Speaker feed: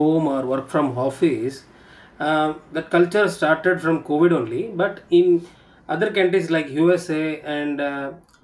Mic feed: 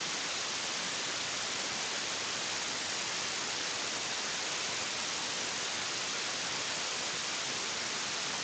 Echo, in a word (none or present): none